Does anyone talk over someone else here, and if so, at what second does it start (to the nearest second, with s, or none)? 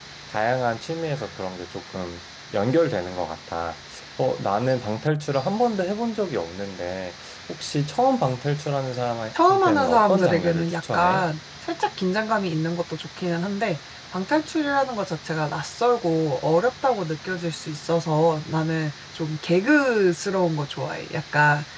9 s